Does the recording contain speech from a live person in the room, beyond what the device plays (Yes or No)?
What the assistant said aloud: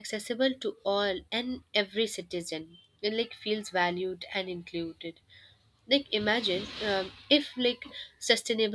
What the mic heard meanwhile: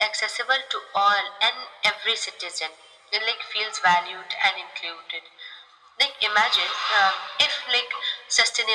No